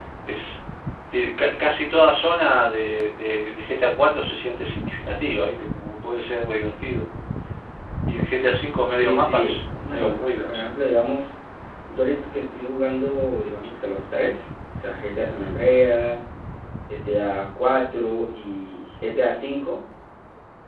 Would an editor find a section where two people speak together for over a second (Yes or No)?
Yes